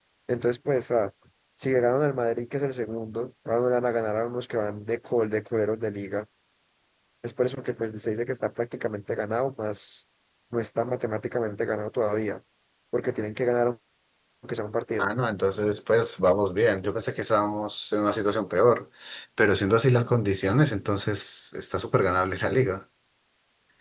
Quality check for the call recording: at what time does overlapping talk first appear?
none

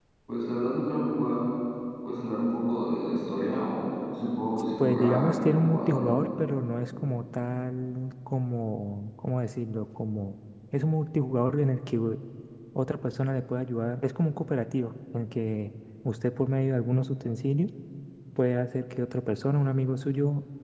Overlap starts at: 4.6 s

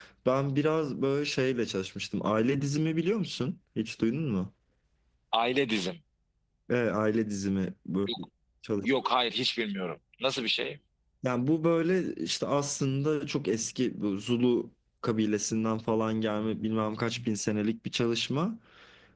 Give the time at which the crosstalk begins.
none

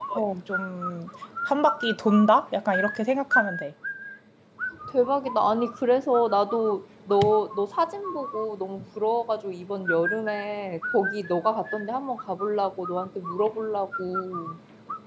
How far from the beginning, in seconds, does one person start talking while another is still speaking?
none

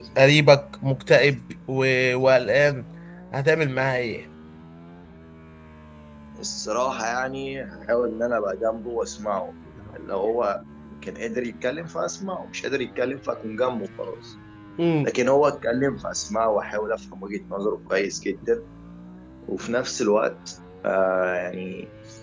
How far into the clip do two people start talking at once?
none

